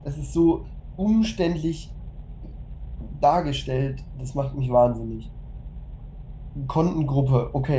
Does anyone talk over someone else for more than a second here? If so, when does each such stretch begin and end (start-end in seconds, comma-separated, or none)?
none